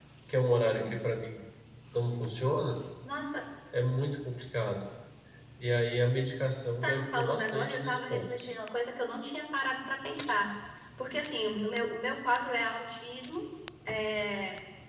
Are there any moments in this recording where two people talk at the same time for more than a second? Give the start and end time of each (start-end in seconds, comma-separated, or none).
6.8-8.3